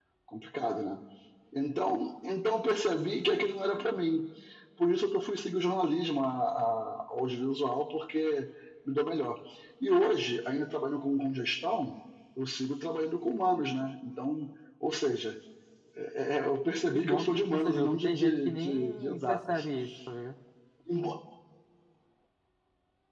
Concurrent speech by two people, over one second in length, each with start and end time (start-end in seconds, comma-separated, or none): 16.9-19.6